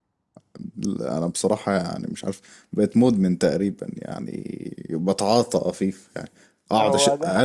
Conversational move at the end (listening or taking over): listening